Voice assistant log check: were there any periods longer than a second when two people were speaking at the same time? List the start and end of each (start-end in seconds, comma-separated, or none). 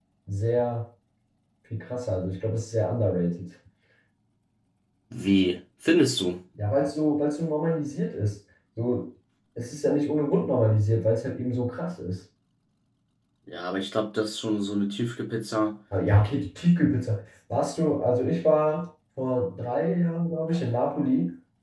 none